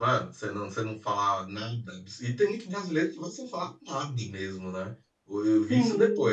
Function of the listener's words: listening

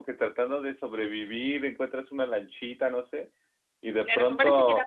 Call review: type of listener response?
taking over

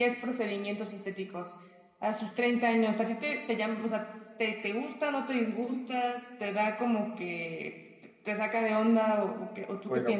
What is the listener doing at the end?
taking over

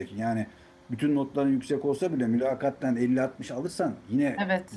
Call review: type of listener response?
taking over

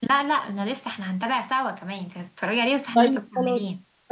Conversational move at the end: taking over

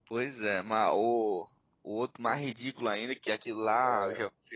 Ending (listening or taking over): listening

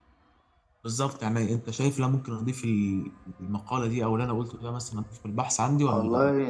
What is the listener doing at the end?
taking over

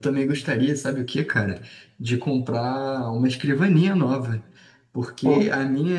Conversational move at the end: listening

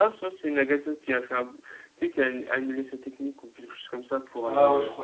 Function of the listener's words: taking over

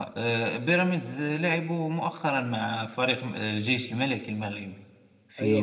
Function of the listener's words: taking over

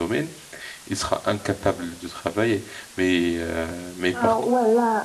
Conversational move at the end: taking over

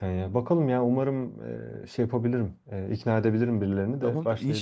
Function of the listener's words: taking over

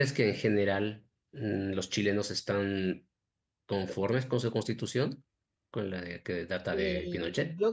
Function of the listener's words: taking over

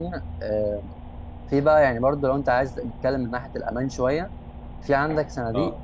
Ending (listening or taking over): listening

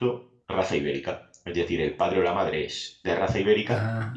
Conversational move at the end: listening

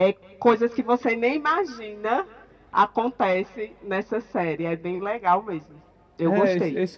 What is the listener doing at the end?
taking over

